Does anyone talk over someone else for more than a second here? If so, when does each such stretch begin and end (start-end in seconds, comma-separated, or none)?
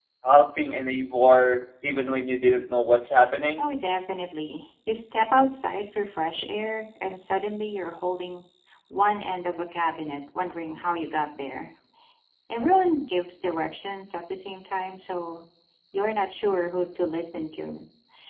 none